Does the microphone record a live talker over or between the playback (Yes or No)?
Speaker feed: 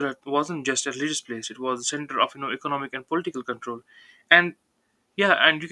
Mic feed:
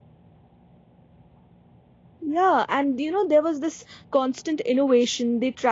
Yes